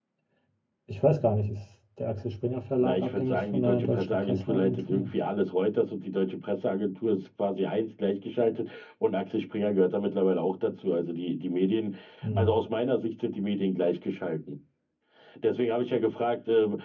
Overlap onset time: 2.8 s

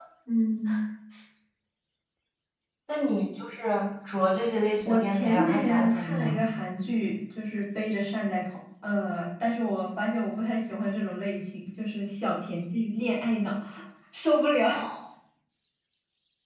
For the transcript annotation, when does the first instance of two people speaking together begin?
4.8 s

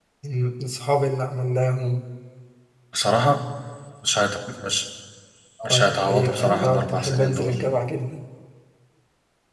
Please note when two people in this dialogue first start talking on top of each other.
5.7 s

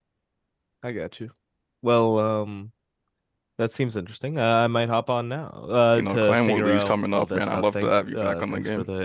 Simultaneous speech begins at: 6.0 s

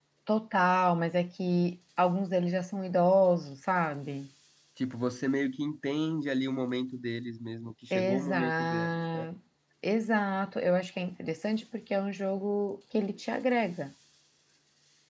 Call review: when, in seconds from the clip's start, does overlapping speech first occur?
7.9 s

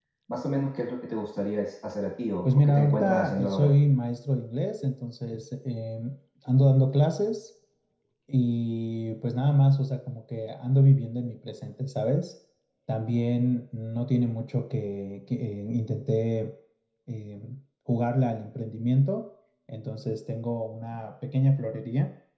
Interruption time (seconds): 2.5 s

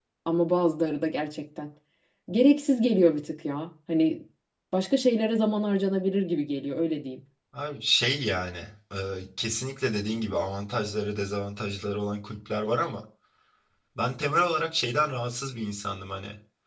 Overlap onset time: none

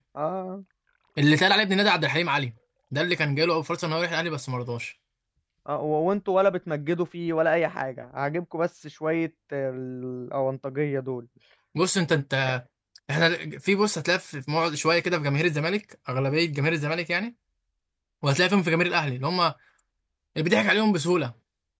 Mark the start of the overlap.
none

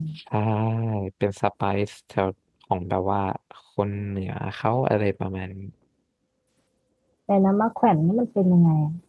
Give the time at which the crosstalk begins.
none

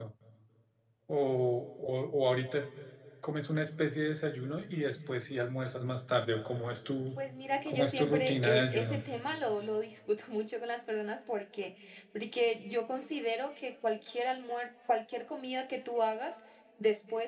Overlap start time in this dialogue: 7.7 s

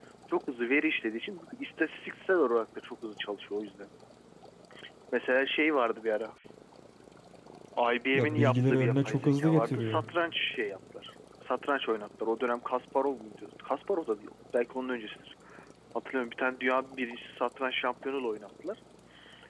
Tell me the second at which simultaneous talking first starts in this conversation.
8.1 s

